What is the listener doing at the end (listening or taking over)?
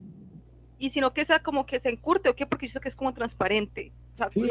taking over